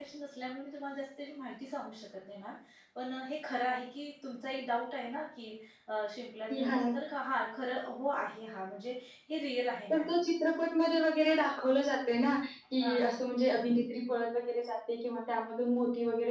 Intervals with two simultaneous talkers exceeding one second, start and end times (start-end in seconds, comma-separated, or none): none